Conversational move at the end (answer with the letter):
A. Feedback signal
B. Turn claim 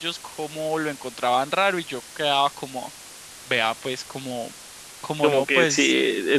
B